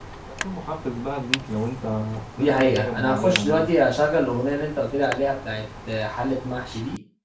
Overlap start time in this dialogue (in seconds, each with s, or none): 2.4 s